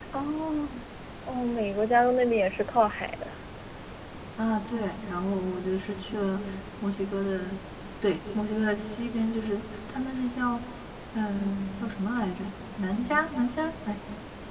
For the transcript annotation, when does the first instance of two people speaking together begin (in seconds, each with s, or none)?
none